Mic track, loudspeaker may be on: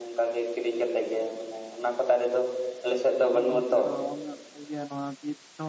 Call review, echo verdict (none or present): present